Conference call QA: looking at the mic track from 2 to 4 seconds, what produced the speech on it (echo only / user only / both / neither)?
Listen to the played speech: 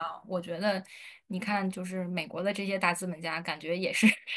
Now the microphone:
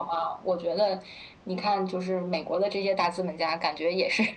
echo only